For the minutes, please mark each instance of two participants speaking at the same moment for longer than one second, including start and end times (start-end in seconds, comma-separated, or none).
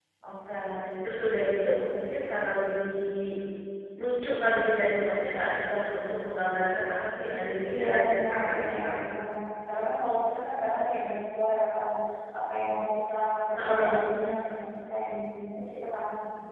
7.7-8.9